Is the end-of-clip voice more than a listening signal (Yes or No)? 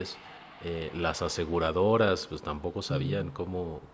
No